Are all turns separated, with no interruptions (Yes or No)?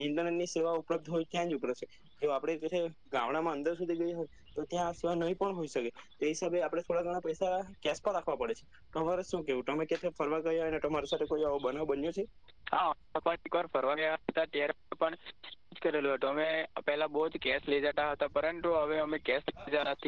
Yes